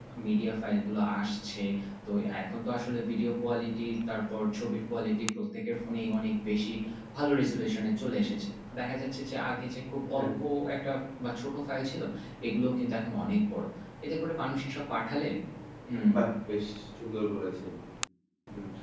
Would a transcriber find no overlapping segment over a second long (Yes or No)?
Yes